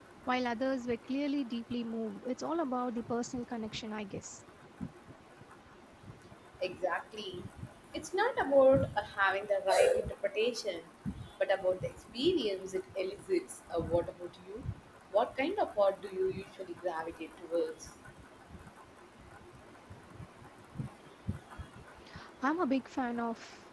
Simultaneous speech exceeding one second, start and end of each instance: none

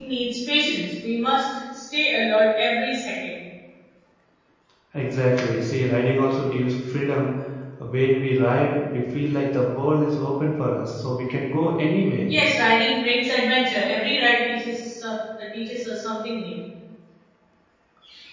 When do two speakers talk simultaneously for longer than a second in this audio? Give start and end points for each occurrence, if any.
none

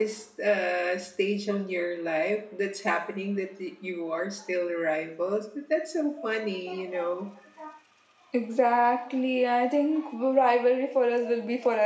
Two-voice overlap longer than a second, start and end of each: none

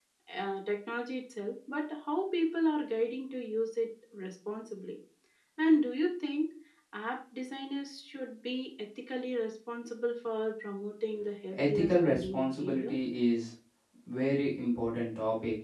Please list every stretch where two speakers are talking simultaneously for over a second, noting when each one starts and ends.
11.6-12.9

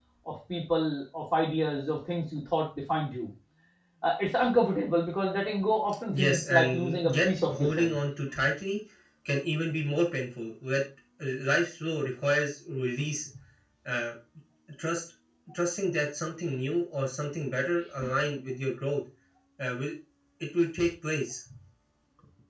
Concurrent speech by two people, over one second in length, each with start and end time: 6.1-7.9

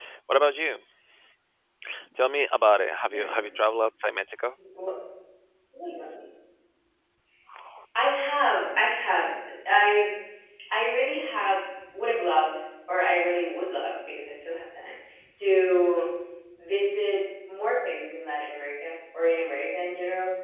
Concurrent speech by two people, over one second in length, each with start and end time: none

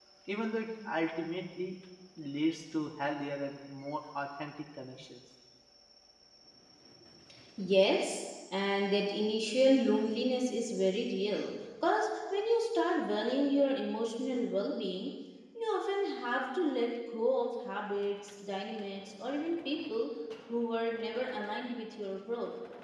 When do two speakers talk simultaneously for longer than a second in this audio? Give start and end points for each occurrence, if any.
none

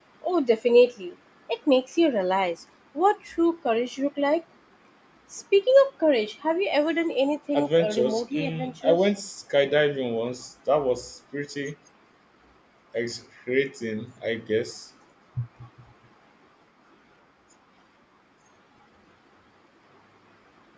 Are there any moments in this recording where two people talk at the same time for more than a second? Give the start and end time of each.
7.5-9.0

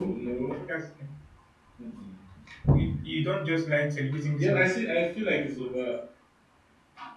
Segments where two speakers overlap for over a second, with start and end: none

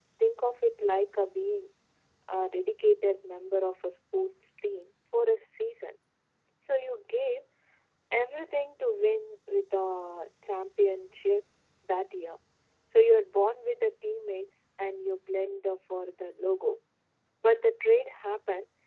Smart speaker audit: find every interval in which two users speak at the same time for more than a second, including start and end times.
none

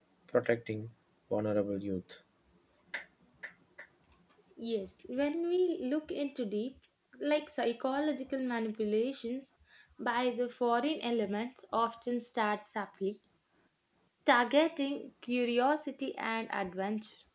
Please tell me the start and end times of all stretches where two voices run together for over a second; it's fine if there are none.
none

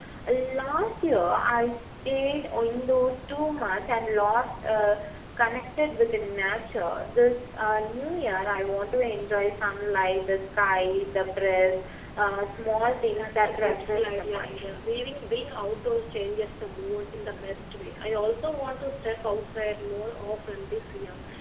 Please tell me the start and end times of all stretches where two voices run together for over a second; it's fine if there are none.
13.2-14.6

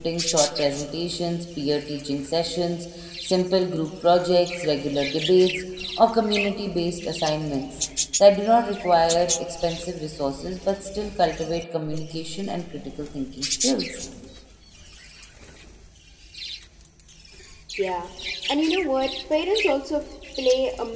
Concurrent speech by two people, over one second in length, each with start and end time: none

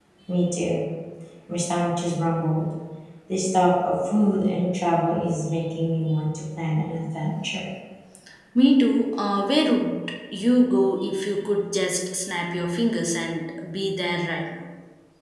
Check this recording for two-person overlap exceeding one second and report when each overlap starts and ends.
none

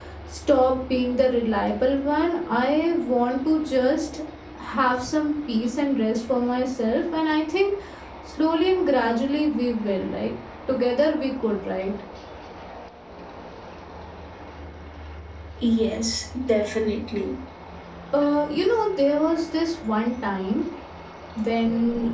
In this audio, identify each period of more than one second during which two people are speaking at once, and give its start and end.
none

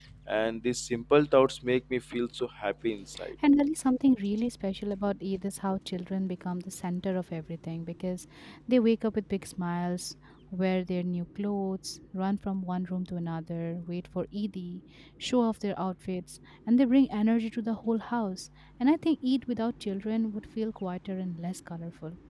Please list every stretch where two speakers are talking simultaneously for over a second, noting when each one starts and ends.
none

